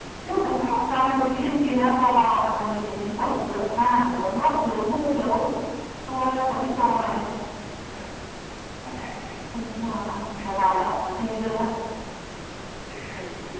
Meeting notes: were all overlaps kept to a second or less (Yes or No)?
Yes